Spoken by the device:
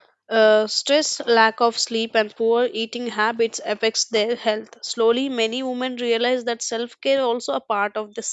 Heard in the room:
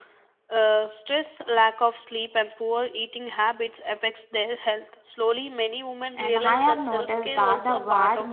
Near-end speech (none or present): present